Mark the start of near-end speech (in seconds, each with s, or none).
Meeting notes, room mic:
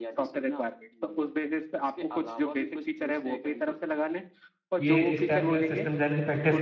4.8 s